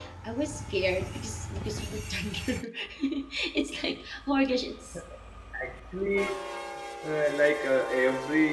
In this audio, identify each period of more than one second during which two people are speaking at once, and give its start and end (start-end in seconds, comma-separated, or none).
none